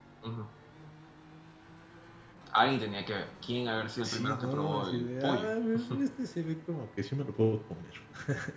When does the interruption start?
4.0 s

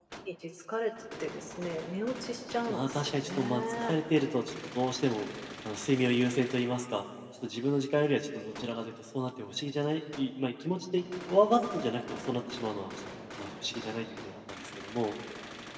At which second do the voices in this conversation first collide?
2.7 s

